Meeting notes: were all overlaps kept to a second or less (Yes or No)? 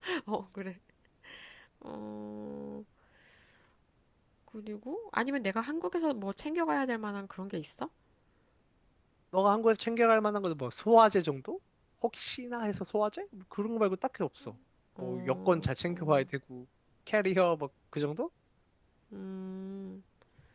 No